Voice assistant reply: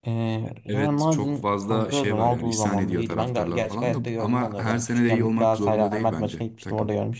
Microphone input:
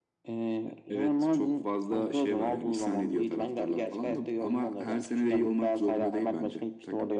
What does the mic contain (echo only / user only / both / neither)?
echo only